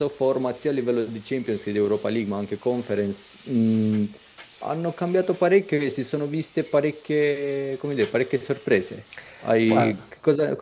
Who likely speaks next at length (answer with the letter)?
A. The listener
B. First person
B